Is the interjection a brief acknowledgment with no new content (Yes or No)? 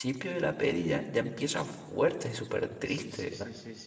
No